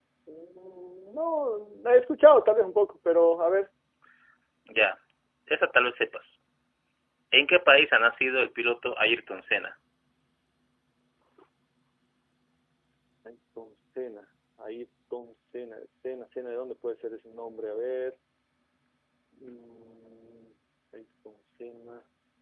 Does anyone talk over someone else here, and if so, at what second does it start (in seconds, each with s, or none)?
none